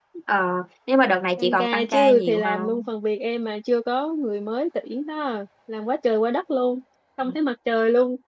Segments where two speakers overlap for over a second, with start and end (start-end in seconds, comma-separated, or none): 1.4-2.9